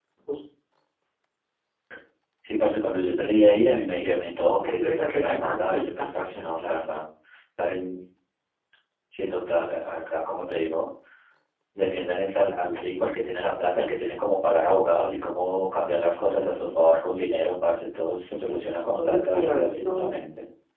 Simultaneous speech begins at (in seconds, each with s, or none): 4.6 s